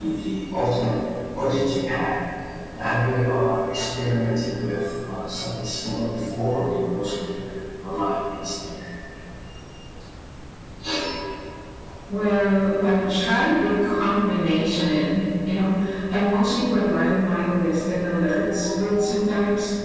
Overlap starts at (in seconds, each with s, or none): none